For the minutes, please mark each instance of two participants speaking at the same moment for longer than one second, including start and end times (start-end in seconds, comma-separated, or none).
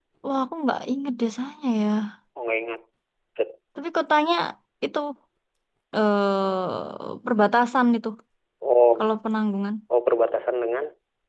none